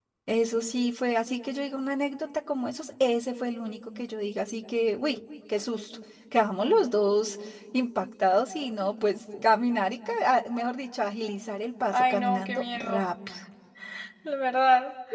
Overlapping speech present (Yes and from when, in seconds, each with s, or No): Yes, from 11.9 s